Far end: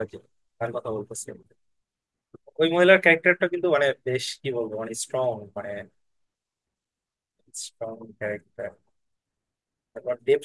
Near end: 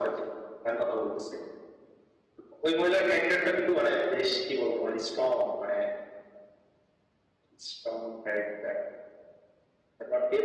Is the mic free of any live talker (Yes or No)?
Yes